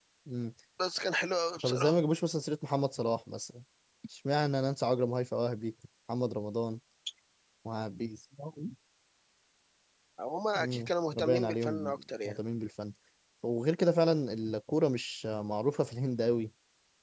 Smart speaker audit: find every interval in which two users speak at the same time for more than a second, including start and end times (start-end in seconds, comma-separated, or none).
10.6-12.4